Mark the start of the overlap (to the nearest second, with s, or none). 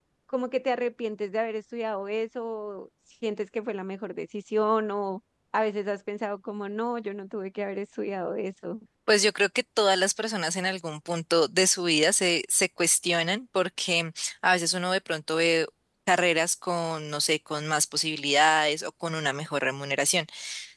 none